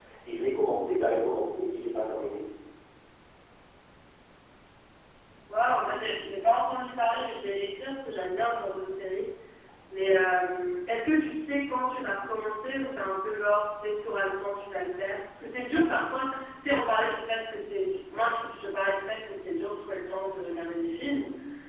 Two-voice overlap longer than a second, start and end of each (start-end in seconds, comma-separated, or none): none